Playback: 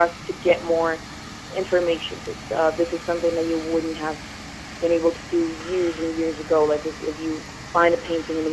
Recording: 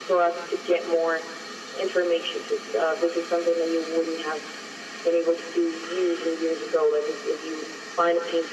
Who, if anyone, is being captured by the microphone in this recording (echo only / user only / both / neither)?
echo only